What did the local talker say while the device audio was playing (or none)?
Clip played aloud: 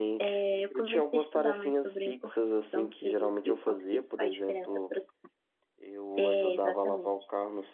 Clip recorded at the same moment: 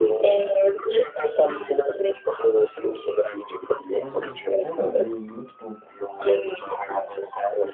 Não, poucas vezes, muito pouco.